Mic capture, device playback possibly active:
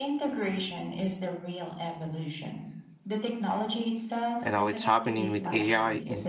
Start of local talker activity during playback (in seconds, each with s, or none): 4.4 s